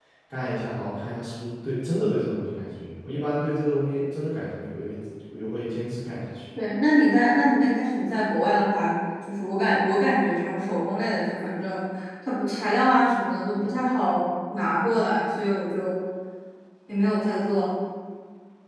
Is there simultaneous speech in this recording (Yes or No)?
No